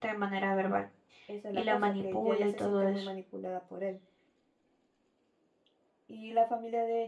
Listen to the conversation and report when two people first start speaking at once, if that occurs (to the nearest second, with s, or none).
2 s